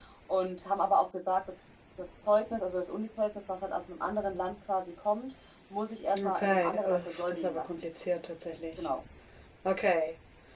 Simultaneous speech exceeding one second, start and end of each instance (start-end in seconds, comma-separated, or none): 6.2-7.8